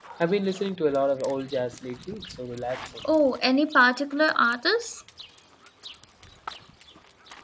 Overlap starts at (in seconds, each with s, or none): none